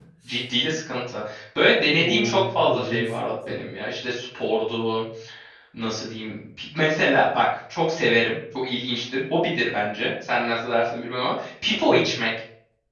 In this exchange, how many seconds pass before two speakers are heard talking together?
1.8 s

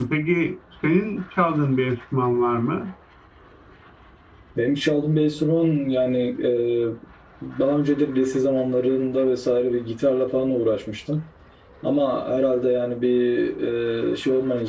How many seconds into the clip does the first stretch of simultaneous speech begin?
none

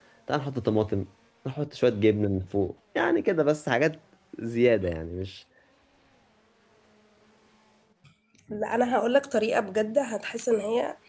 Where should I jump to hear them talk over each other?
none

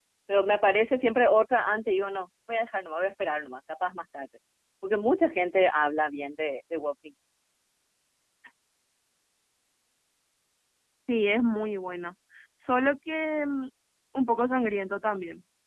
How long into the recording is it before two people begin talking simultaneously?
none

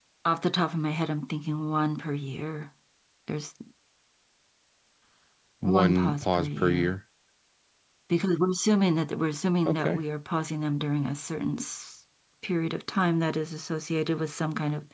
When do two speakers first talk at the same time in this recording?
5.6 s

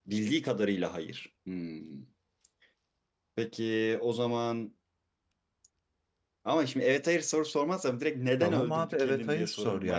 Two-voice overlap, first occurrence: 8.4 s

